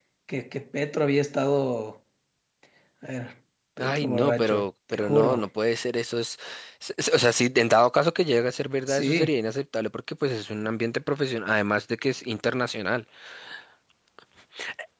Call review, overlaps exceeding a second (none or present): present